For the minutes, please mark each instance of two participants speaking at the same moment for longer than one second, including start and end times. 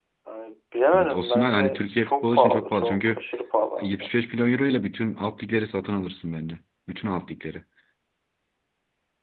0.9-3.2

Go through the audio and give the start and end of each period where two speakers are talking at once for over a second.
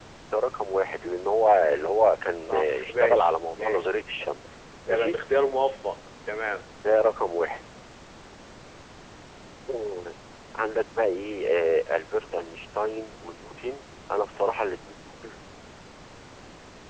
2.5-3.9

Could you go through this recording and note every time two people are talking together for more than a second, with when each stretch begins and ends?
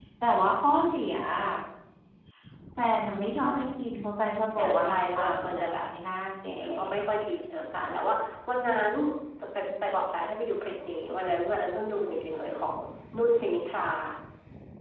4.6-5.9

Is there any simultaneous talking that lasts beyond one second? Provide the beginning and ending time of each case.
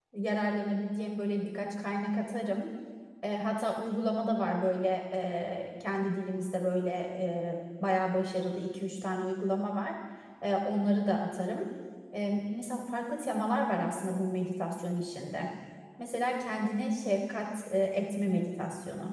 none

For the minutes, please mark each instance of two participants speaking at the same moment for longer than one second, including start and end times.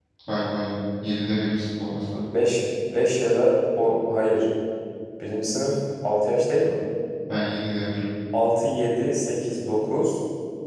none

